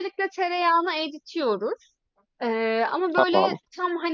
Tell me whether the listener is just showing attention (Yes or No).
Yes